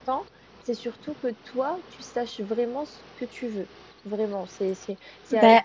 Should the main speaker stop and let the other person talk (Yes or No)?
No